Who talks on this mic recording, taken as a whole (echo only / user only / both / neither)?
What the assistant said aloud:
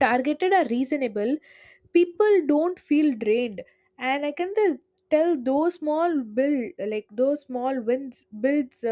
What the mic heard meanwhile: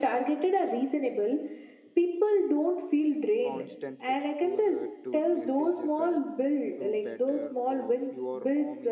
both